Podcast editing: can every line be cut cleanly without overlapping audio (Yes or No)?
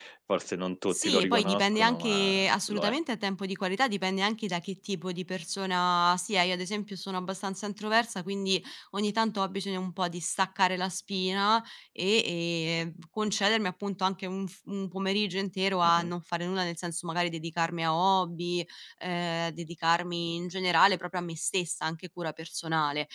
No